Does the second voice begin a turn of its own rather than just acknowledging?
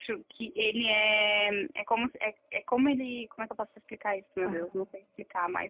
No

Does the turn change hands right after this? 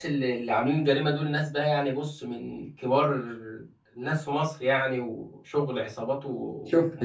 Yes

